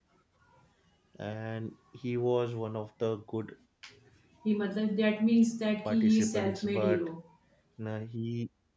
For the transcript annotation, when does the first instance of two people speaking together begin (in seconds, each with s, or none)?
5.8 s